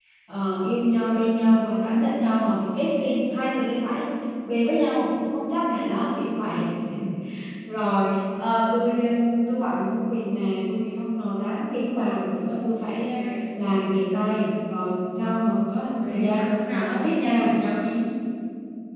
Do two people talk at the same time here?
Yes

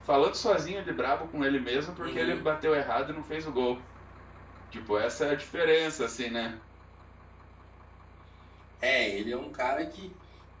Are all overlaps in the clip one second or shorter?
Yes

